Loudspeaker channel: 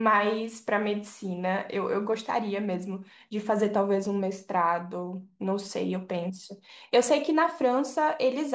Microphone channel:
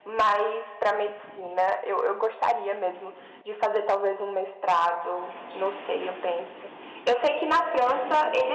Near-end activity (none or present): none